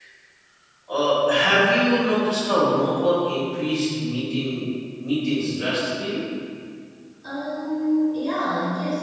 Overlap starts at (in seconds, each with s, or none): none